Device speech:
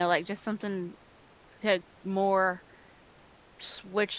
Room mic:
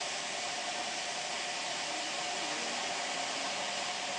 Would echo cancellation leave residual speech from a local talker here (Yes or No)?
No